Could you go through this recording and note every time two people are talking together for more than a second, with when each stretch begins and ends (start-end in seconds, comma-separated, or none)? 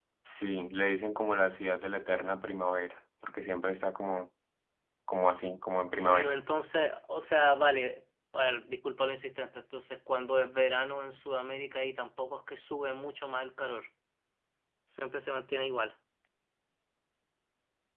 none